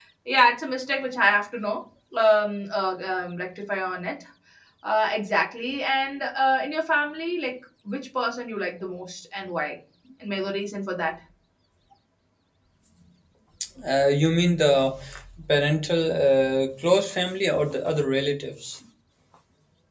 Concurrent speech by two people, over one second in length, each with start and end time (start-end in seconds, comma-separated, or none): none